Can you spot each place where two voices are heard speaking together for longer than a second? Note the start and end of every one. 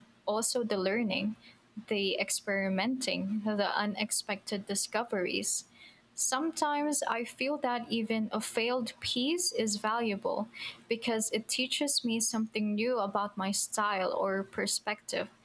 none

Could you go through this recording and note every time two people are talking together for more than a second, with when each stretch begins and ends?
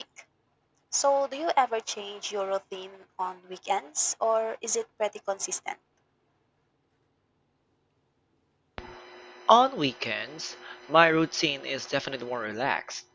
none

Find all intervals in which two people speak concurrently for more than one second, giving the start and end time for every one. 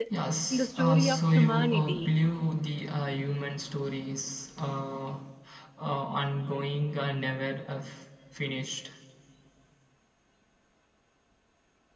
0.5-2.1

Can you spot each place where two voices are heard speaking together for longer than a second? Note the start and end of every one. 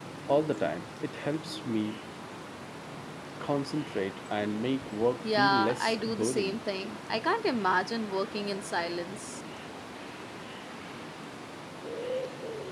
5.2-6.6

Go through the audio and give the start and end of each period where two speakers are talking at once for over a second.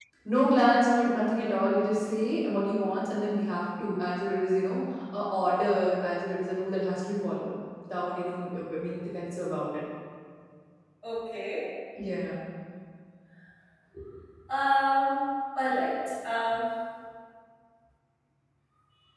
none

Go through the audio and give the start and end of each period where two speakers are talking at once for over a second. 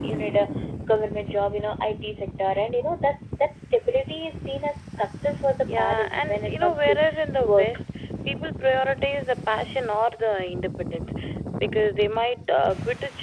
5.8-7.0

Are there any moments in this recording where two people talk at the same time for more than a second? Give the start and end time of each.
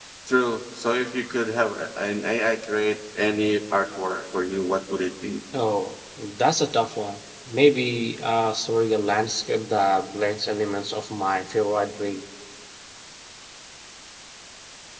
none

